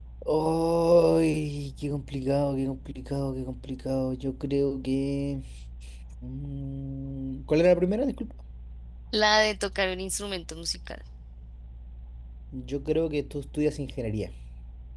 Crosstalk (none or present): none